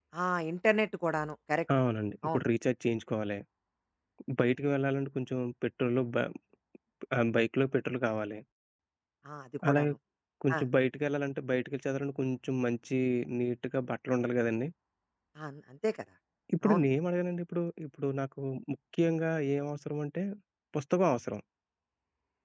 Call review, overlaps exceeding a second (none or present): none